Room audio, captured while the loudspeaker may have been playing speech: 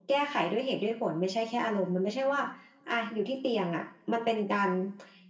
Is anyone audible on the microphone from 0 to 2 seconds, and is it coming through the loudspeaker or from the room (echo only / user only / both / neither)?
echo only